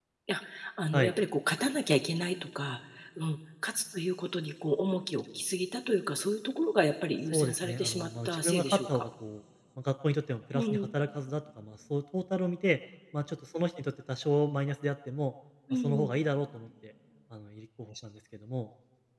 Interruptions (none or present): present